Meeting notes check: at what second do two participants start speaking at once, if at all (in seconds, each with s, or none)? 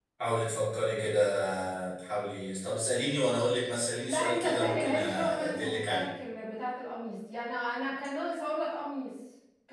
4.0 s